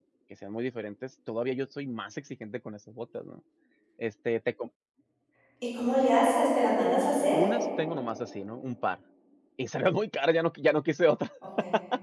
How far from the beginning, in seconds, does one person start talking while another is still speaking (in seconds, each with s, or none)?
none